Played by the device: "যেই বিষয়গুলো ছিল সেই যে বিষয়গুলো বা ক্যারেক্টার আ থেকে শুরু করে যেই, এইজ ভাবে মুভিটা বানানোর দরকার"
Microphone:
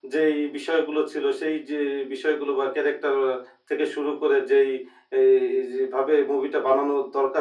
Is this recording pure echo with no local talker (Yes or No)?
Yes